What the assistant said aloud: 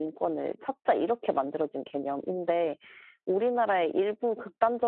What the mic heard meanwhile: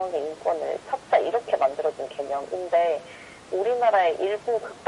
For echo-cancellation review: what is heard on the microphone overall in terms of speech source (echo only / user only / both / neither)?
echo only